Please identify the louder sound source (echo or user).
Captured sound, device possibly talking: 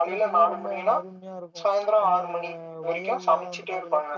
echo